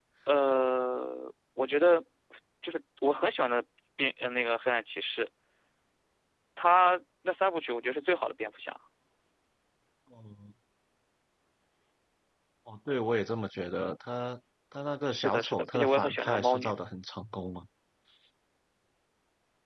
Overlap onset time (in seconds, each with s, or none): 15.1 s